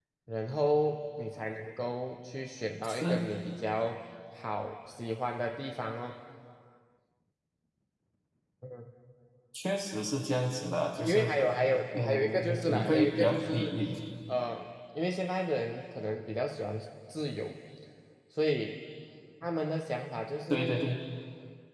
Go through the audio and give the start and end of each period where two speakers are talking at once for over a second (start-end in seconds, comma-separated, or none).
11.9-13.8